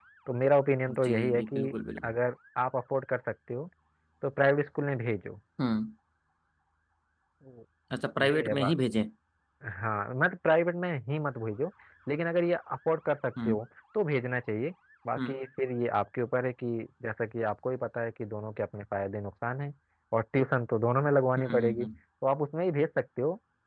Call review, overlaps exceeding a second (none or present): present